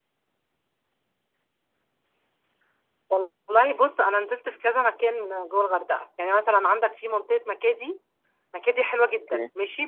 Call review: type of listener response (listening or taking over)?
listening